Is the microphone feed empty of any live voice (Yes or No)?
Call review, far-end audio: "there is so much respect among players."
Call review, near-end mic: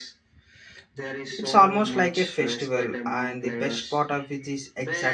No